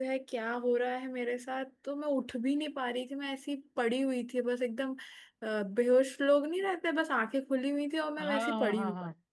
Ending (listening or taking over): taking over